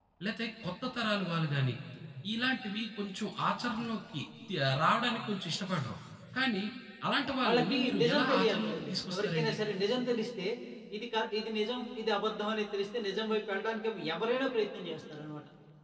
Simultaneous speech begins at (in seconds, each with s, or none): 7.5 s